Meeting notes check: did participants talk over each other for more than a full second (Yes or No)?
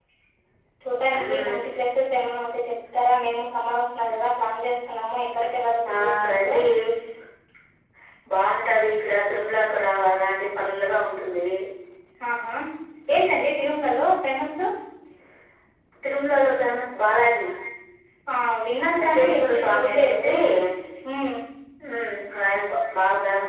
Yes